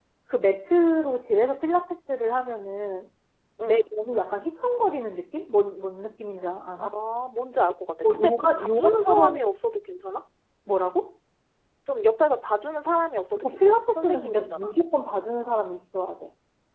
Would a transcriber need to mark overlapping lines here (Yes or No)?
Yes